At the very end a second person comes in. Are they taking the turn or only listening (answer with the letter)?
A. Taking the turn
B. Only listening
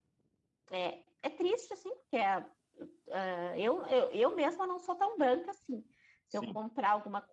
B